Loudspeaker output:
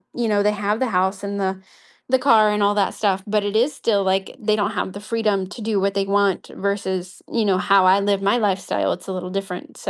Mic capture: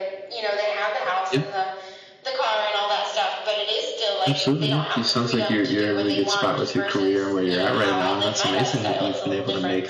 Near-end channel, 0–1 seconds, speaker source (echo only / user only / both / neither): echo only